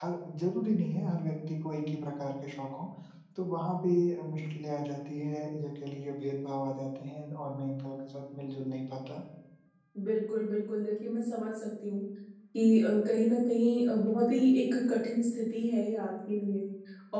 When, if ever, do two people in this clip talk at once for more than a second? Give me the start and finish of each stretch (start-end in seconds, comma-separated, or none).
none